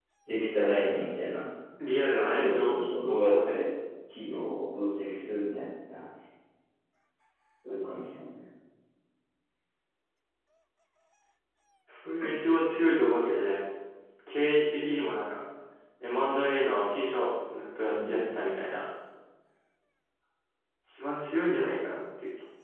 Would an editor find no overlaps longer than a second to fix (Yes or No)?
No